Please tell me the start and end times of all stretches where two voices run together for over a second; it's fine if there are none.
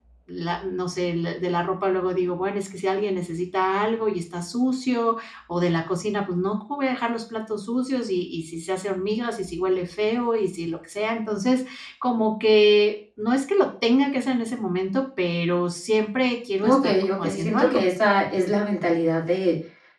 16.6-17.8

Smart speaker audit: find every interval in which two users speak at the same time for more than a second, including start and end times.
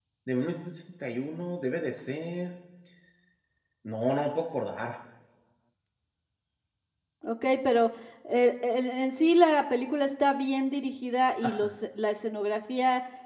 none

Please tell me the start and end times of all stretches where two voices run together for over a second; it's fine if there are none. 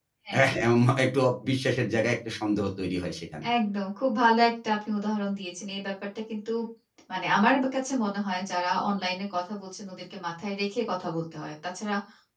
none

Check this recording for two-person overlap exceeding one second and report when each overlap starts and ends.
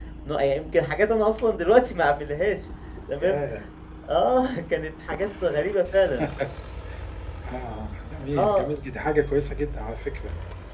none

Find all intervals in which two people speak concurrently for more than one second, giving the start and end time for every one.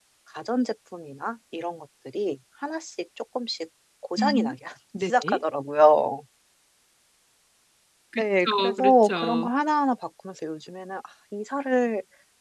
8.2-9.5

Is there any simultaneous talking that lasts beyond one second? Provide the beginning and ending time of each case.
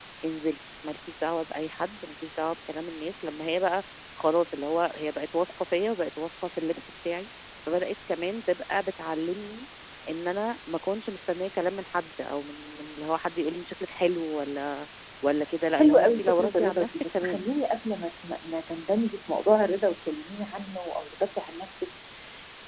15.7-17.4

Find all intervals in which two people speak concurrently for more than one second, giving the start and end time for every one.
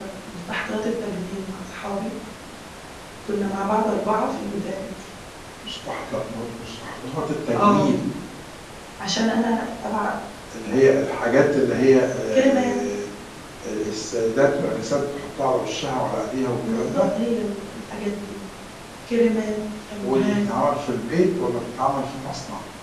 none

